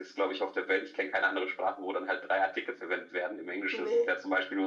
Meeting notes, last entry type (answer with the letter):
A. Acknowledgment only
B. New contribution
A